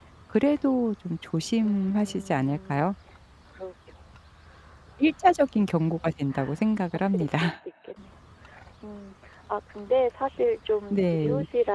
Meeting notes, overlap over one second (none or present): present